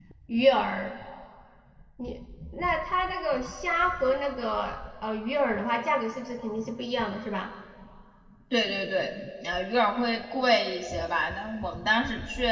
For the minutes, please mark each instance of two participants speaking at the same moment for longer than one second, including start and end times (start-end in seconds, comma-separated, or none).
none